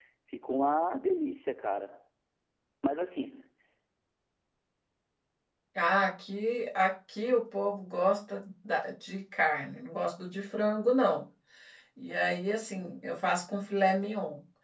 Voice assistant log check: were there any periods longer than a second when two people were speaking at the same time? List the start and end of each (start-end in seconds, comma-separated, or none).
none